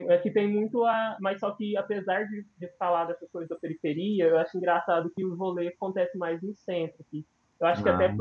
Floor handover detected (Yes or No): No